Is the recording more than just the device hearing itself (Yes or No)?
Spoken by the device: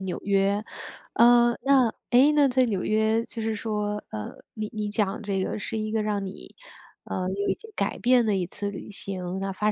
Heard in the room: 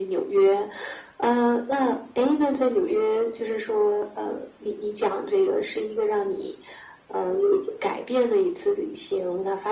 No